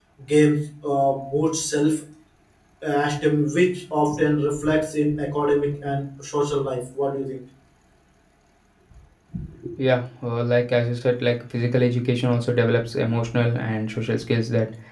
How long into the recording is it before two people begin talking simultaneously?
none

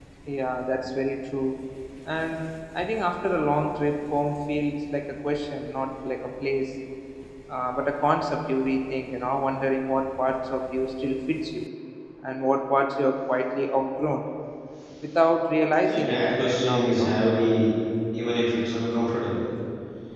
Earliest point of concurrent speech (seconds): 16 s

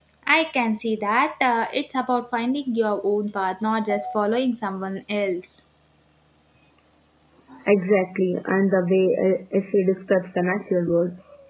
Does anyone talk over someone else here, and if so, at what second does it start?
none

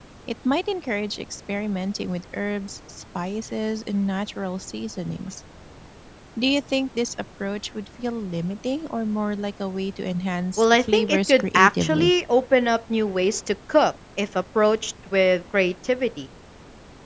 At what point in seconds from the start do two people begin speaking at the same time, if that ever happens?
11 s

